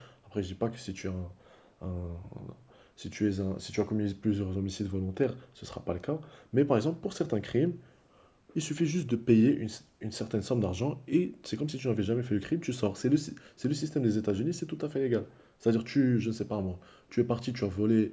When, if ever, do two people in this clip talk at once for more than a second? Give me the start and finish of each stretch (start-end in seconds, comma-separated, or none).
none